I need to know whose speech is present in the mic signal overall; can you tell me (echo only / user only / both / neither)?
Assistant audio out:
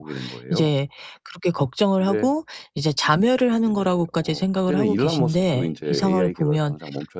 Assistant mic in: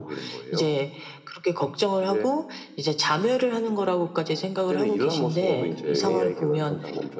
both